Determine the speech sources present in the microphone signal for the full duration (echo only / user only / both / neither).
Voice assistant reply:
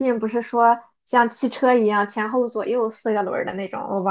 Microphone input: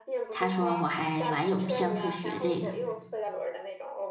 both